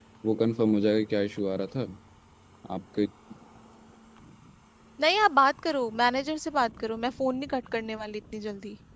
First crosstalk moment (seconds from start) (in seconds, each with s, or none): none